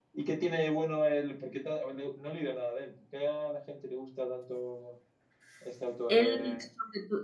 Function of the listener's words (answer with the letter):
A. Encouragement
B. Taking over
B